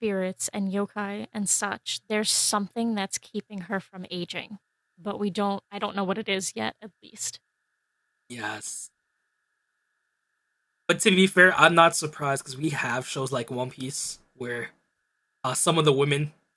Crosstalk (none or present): none